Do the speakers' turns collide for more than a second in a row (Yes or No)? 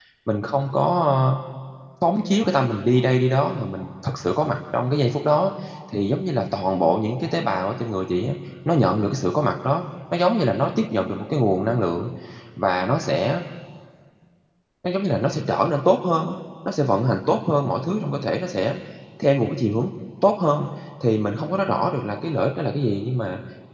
No